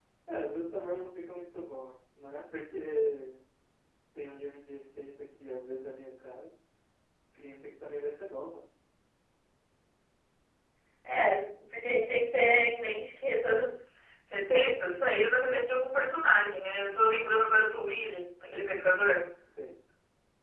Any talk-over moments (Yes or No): No